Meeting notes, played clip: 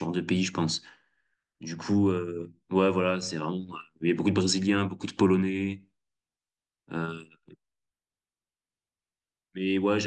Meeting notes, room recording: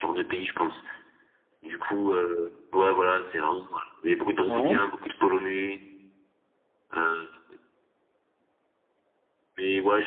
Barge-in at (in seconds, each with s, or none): 4.5 s